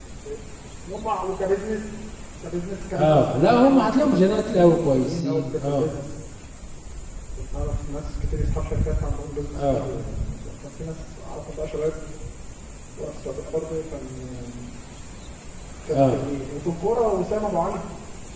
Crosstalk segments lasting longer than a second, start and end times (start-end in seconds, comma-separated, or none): 3.0-5.9